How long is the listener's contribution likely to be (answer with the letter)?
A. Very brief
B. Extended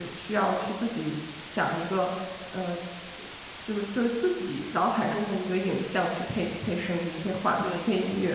B